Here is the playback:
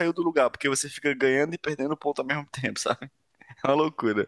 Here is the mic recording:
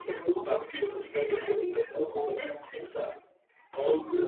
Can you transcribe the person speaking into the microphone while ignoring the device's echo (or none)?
Hum,